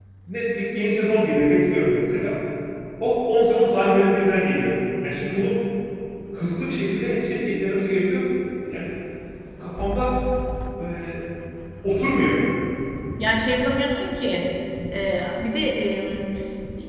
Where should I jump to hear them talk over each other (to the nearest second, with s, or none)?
none